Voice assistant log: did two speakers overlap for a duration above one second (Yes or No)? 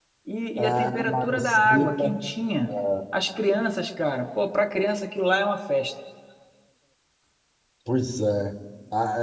Yes